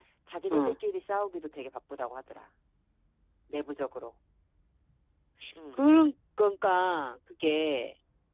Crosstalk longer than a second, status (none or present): none